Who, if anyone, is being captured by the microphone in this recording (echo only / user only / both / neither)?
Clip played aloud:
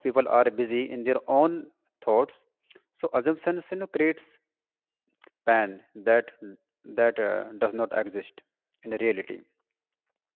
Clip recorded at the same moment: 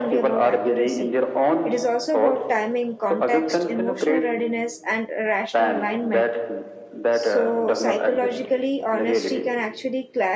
both